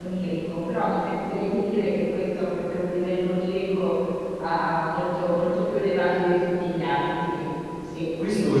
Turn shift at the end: Yes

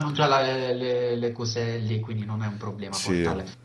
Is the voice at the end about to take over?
No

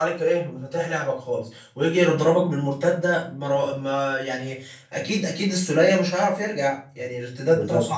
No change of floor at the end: Yes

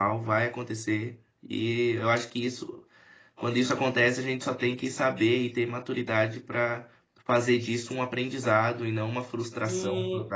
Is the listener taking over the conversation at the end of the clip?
Yes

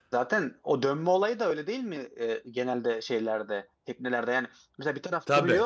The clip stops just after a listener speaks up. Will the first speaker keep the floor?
Yes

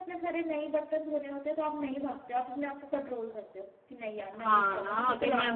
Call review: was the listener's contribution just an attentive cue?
No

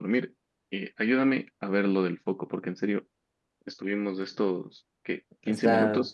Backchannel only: Yes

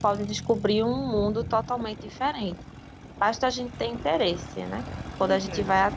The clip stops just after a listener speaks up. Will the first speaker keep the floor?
Yes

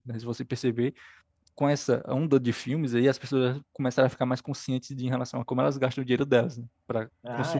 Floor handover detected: No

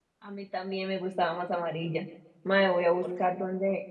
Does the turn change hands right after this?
No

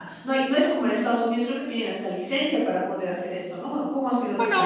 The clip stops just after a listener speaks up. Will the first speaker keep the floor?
No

